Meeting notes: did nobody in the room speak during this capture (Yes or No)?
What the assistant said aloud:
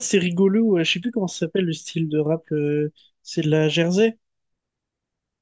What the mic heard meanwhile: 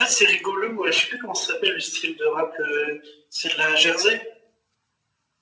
Yes